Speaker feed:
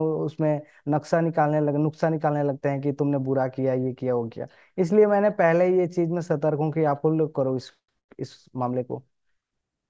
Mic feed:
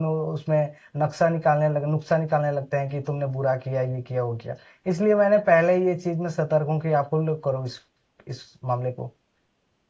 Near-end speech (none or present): none